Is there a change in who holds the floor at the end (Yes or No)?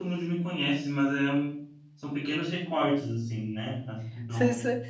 Yes